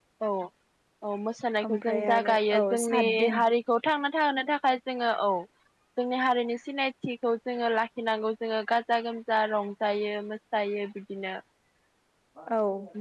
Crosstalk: present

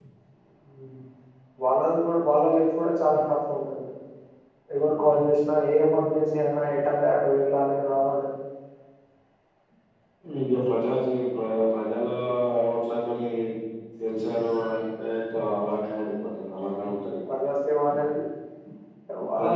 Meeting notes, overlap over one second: none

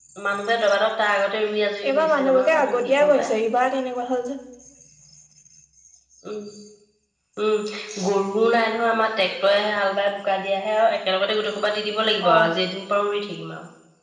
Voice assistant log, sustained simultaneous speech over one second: present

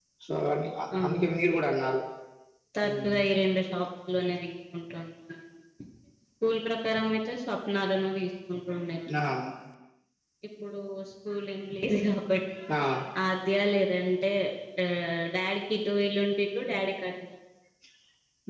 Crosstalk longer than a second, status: none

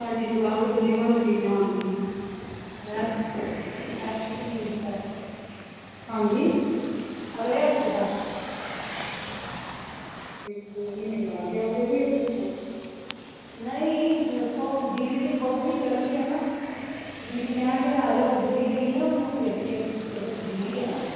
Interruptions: none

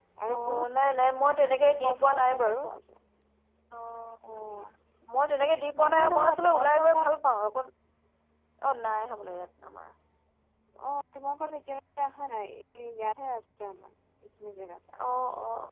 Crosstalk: present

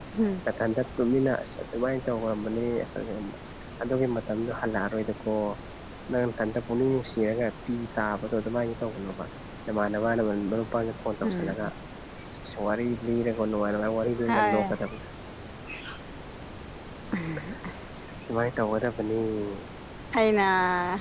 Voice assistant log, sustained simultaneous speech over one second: none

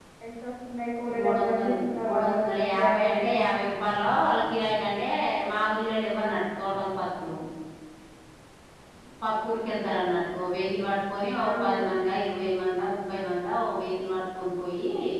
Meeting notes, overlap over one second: present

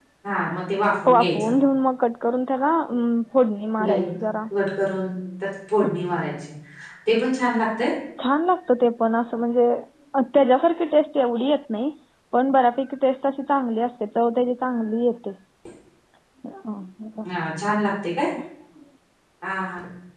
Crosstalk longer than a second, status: none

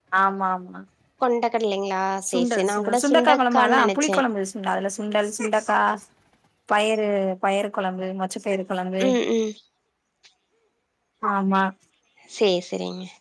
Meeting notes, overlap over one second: present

